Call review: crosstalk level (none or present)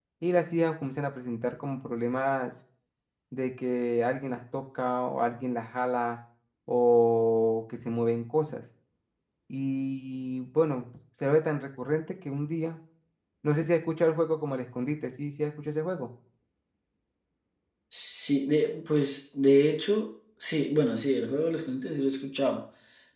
none